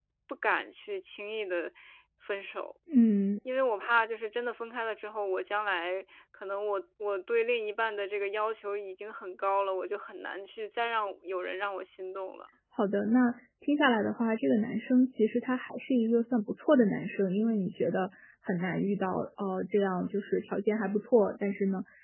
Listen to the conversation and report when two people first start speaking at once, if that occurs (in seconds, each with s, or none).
none